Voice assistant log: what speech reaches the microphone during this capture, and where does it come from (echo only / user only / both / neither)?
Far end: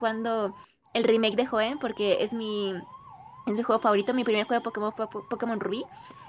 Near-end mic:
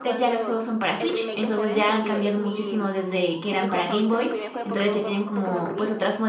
both